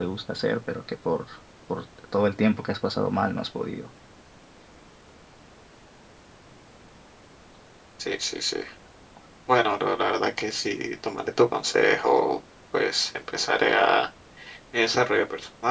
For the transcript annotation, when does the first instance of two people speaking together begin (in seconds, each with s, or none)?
none